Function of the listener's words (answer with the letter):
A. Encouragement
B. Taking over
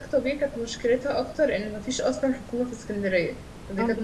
B